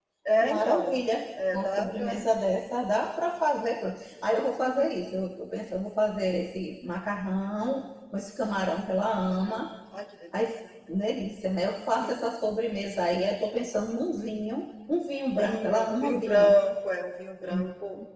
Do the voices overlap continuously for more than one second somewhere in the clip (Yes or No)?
Yes